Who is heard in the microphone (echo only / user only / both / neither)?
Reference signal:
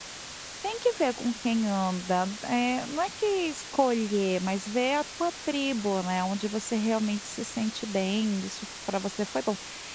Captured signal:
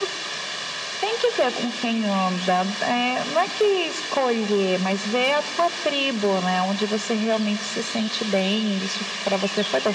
echo only